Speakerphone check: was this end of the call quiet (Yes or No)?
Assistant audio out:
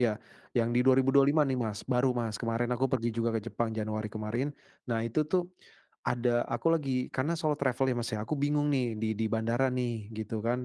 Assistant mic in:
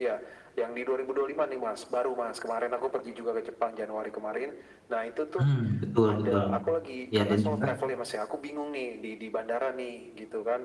No